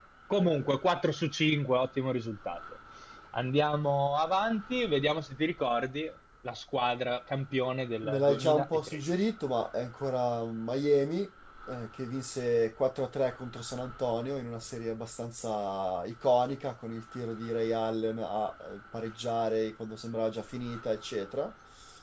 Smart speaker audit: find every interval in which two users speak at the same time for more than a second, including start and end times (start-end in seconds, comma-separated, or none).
8.0-9.3